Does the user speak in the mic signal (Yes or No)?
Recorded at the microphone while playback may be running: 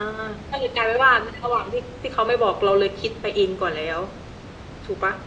Yes